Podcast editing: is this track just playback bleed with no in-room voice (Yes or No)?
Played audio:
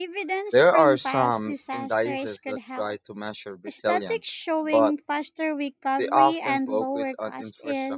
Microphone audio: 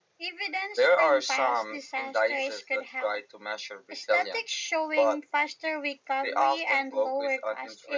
Yes